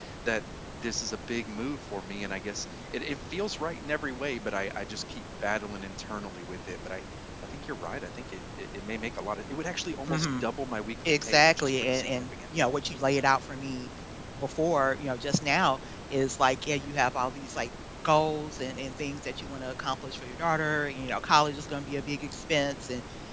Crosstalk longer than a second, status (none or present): present